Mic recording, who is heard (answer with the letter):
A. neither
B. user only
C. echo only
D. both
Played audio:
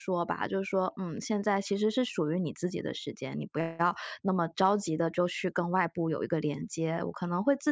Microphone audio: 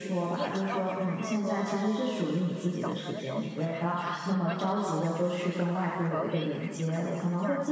D